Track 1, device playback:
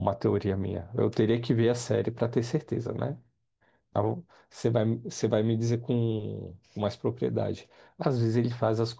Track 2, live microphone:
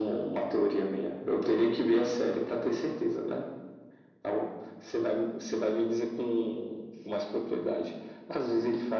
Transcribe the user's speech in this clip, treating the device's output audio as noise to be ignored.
none

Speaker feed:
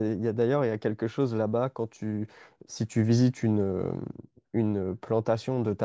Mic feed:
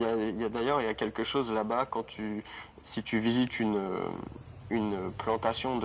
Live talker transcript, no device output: none

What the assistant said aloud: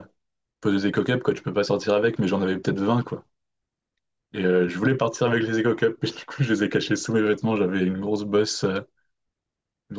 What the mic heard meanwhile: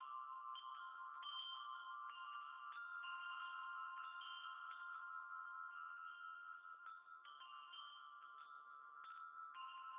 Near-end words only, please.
none

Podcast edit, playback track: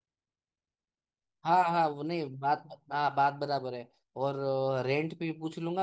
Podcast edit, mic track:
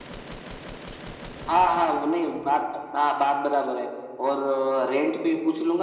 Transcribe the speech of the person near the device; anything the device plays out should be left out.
none

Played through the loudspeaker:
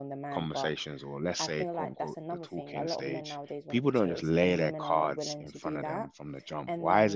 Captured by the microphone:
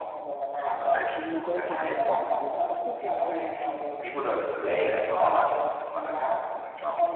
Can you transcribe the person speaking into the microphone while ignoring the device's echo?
majority of women don't want to do that. Of course, there's women who,

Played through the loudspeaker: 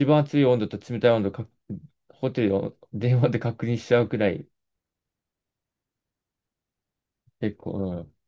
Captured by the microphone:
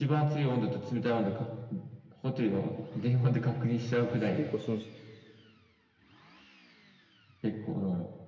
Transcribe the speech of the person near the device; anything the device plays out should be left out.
あ、結構その、

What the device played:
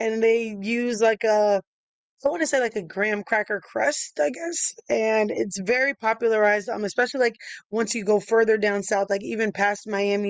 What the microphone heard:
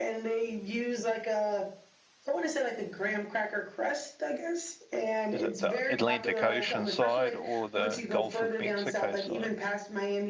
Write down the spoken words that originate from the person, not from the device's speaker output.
is it the Atlantic Ocean side or the Gulf of Mexico side?

